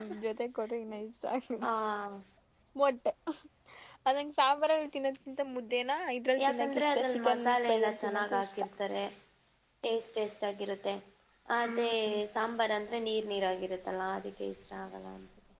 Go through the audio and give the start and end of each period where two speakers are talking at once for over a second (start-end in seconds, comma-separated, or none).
6.6-8.5